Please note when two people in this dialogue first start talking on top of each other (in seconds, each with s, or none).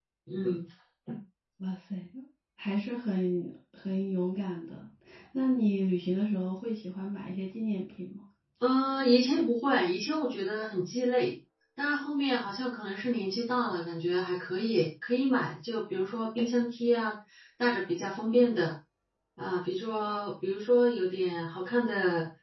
none